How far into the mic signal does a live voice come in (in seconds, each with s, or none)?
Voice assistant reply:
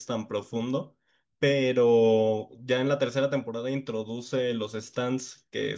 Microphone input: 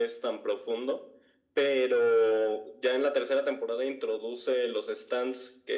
none